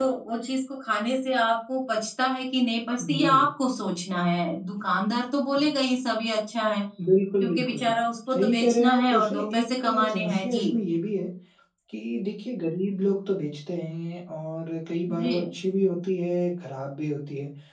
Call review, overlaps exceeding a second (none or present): present